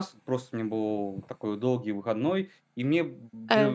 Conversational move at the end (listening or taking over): listening